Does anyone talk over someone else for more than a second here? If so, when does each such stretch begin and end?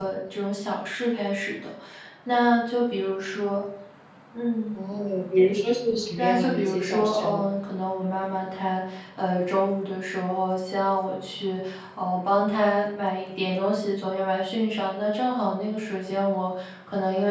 6.2-7.4

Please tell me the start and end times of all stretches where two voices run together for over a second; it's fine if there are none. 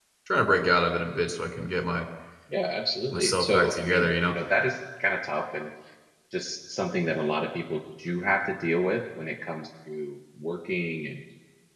3.1-4.4

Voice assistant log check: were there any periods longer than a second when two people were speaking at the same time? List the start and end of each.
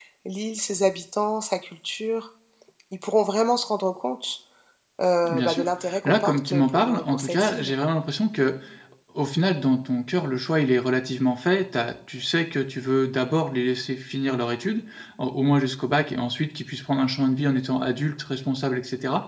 6.0-7.7

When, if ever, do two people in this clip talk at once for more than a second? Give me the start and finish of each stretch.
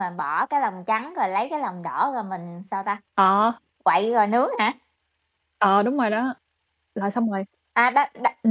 none

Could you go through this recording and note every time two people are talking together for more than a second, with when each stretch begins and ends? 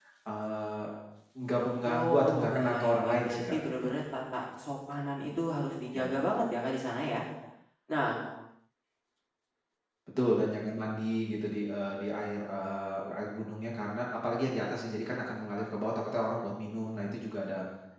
1.9-3.9

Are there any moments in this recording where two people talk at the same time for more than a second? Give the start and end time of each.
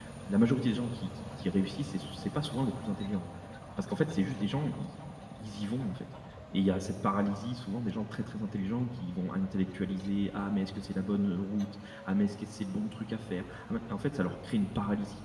none

